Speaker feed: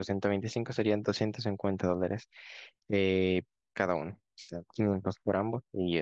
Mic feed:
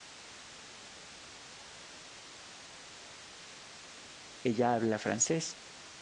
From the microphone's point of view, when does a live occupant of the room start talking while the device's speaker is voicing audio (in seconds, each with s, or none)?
4.4 s